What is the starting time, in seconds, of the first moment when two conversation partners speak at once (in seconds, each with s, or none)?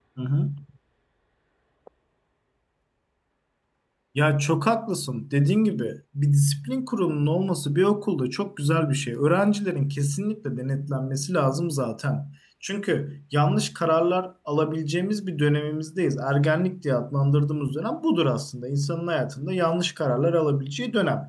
none